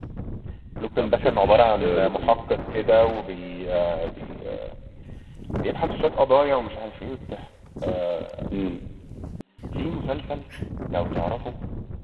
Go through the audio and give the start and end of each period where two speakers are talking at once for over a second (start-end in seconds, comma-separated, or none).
1.0-2.6